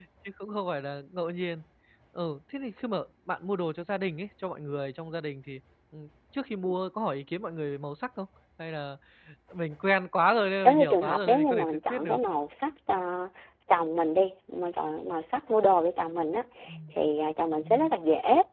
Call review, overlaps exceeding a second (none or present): present